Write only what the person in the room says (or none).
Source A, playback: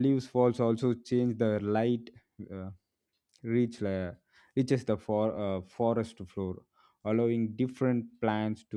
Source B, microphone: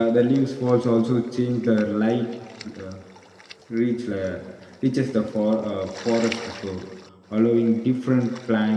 none